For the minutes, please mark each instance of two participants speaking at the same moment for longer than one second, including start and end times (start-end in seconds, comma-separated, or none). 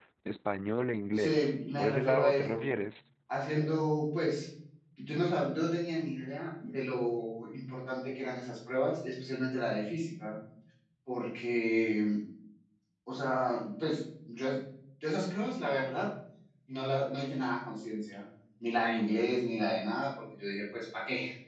1.1-2.6